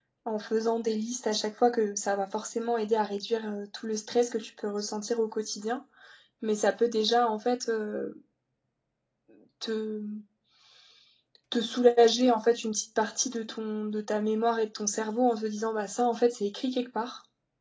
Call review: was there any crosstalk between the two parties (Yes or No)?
No